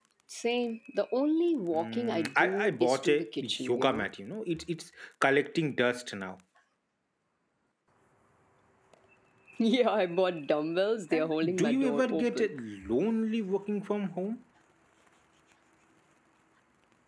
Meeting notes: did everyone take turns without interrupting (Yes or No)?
No